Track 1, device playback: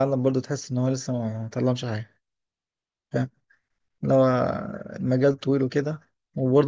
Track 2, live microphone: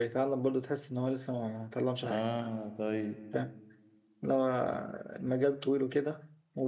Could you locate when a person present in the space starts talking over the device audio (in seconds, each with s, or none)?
2.0 s